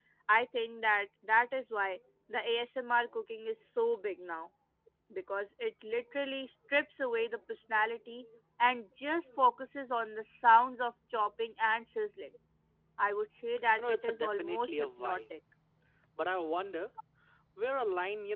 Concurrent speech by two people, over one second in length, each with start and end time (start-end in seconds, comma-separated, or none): 13.8-15.2